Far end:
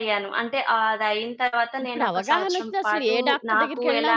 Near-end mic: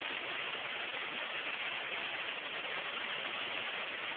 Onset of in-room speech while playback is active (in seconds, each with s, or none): none